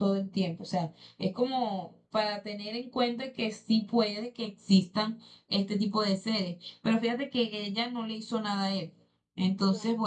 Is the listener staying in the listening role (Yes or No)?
Yes